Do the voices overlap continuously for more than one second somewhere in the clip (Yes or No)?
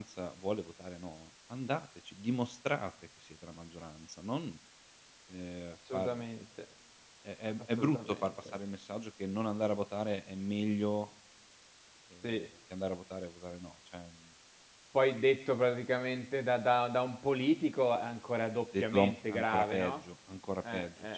Yes